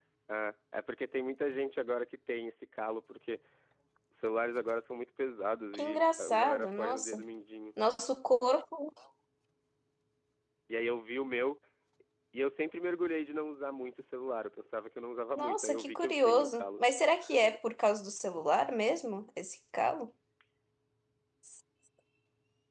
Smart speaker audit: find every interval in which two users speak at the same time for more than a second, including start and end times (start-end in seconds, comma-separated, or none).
5.7-7.2, 15.3-16.8